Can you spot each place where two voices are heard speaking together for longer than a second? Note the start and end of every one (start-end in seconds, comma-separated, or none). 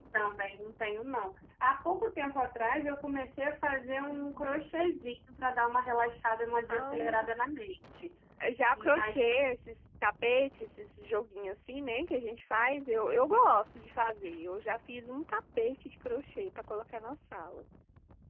none